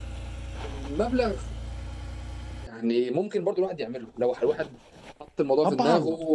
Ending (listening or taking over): listening